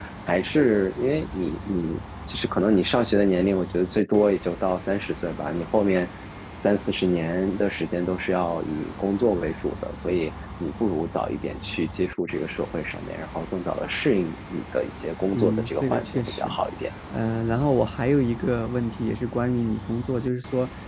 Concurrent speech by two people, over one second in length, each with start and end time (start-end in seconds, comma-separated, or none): 15.3-16.6